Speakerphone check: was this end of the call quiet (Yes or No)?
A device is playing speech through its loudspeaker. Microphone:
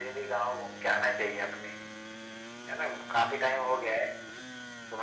Yes